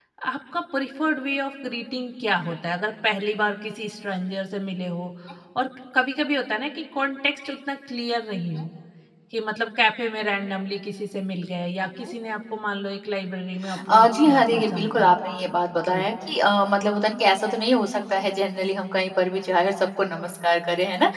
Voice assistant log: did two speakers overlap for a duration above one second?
Yes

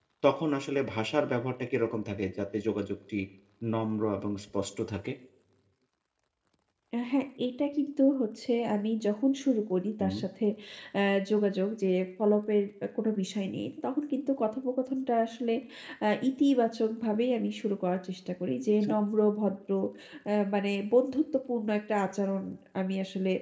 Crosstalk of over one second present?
No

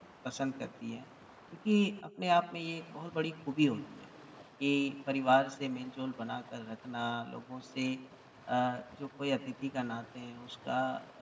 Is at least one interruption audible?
No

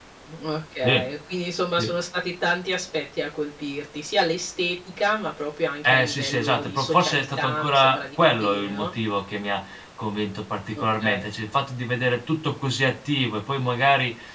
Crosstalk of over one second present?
Yes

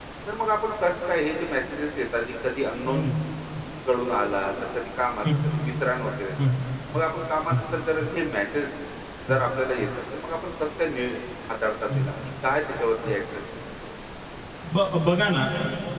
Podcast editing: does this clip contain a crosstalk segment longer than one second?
No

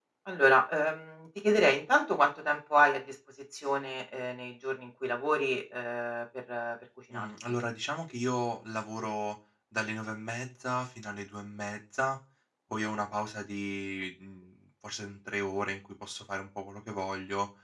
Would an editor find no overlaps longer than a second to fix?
Yes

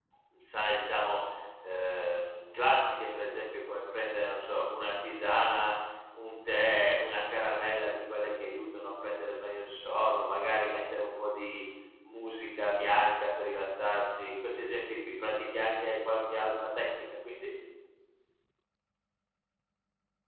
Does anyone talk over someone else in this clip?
No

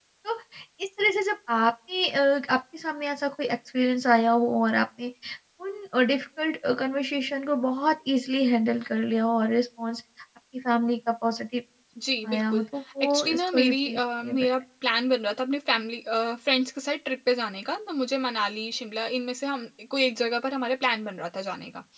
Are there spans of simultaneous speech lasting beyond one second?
Yes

